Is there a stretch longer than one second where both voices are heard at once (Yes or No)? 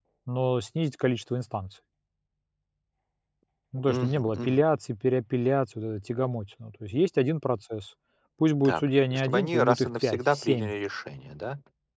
Yes